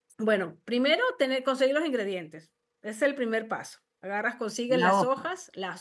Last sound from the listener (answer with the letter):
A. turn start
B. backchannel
B